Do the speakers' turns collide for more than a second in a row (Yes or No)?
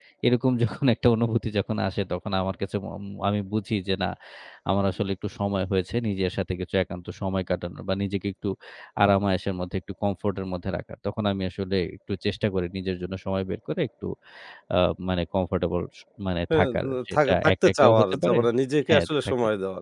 Yes